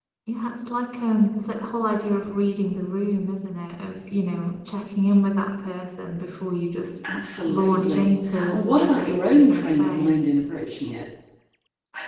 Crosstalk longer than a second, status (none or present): present